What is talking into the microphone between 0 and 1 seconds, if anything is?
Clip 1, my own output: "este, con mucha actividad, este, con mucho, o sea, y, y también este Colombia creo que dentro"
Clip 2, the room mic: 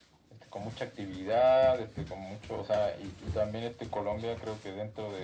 echo only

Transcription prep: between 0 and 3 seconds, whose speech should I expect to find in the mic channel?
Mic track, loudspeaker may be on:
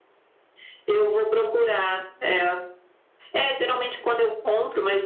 echo only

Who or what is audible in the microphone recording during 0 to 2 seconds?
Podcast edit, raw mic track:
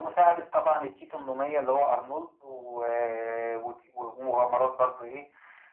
echo only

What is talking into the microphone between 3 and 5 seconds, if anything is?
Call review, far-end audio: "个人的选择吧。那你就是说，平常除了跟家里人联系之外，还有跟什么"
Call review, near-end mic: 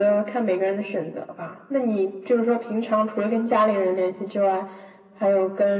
echo only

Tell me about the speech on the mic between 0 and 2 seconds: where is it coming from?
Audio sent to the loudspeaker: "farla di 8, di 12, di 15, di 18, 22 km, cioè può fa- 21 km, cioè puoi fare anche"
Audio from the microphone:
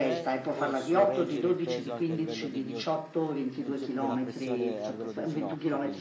both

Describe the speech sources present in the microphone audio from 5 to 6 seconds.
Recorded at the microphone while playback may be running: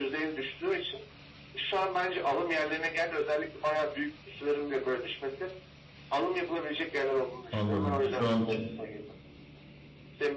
echo only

